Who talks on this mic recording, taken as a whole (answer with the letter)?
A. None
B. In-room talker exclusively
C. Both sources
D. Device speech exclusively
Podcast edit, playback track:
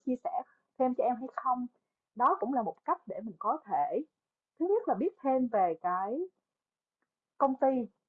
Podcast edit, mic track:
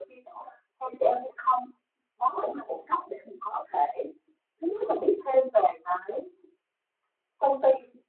D